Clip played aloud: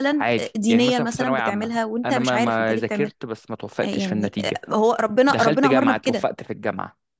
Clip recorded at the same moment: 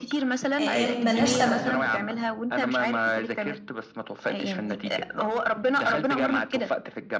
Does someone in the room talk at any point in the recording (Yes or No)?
Yes